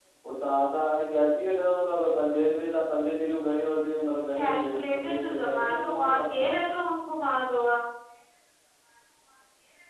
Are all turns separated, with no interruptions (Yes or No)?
No